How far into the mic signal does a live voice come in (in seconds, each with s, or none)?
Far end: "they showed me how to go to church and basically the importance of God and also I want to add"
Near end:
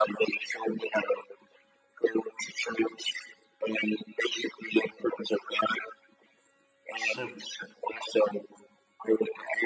6.9 s